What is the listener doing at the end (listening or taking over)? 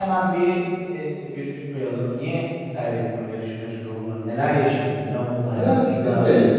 taking over